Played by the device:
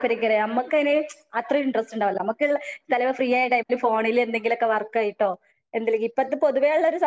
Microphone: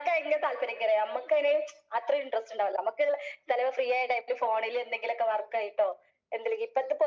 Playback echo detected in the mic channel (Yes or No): Yes